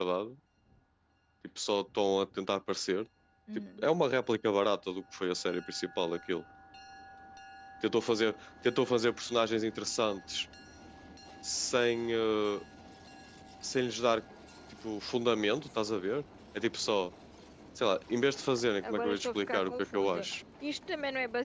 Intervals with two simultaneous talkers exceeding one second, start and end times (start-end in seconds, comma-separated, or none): 18.9-20.2